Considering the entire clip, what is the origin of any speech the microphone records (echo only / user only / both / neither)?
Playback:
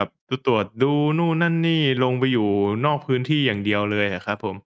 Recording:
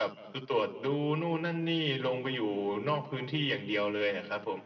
echo only